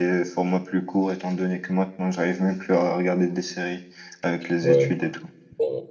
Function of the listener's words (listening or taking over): taking over